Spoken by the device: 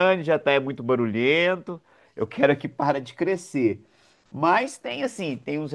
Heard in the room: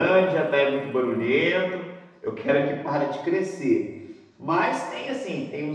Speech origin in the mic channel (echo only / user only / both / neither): echo only